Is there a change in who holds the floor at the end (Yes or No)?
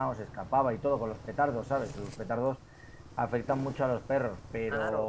Yes